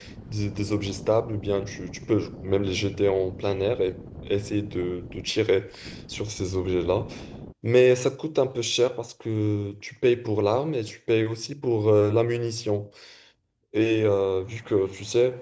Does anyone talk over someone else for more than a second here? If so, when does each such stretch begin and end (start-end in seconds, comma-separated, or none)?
none